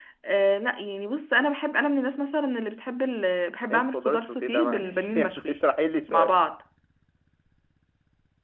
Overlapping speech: Yes, from 3.7 s

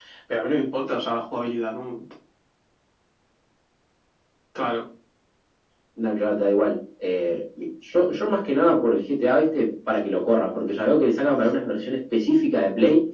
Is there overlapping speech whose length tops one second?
No

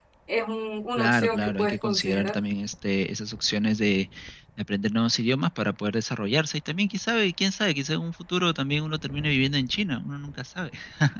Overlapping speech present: Yes, from 1.0 s

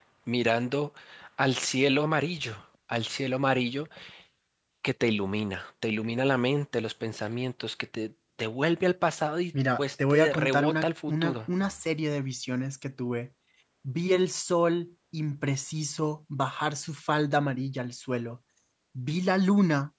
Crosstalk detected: Yes, from 9.8 s

